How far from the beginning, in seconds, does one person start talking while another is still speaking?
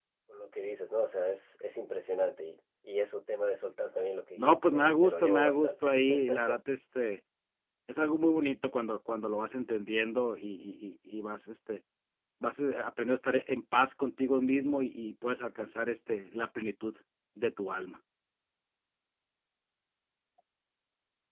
4.4 s

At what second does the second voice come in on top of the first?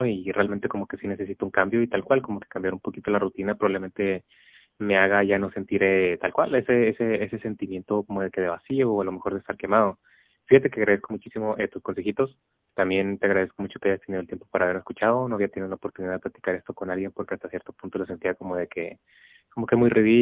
none

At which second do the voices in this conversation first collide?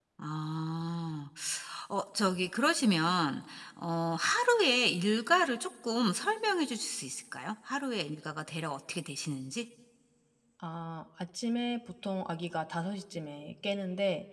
none

